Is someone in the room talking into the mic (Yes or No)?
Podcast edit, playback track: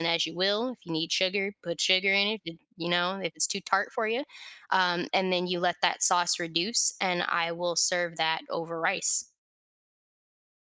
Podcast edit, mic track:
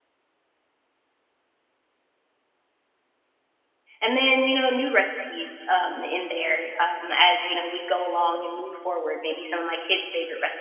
Yes